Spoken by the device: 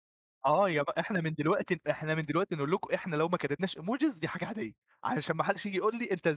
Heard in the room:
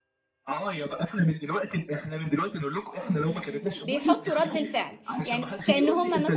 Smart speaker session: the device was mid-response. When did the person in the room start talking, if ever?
3 s

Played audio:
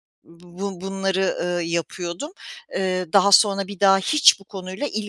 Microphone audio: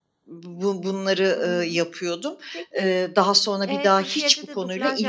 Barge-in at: 1 s

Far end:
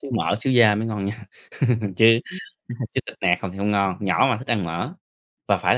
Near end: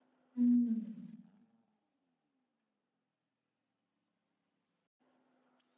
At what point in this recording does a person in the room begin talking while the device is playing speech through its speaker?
0 s

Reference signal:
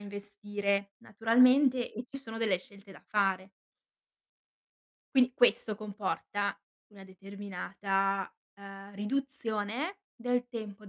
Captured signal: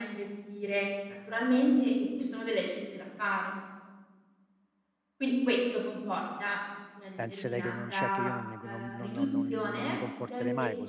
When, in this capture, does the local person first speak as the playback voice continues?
7 s

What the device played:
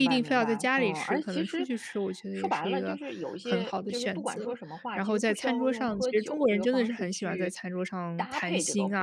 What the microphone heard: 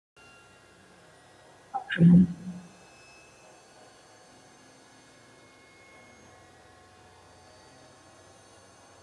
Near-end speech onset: 2 s

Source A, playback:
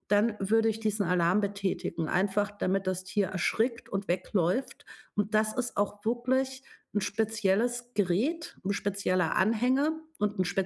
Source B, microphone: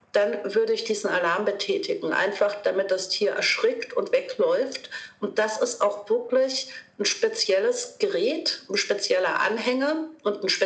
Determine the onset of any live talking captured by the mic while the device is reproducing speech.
none

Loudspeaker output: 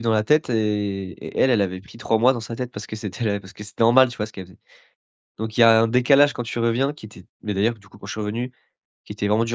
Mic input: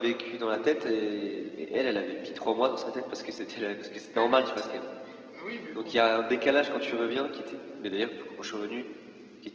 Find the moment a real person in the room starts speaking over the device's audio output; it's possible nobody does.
4 s

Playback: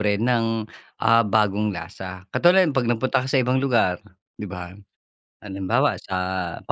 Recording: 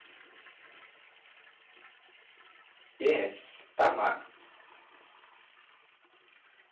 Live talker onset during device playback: 3 s

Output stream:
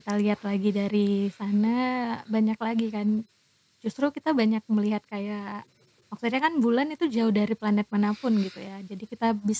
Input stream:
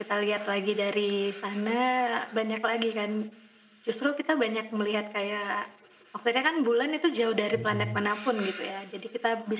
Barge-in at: 8 s

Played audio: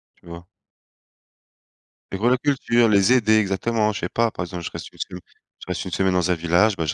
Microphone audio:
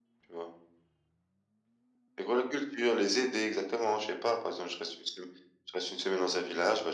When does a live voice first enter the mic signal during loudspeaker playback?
none

